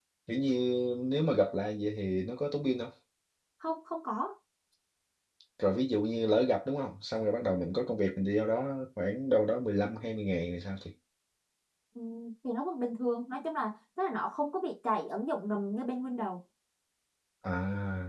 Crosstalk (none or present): none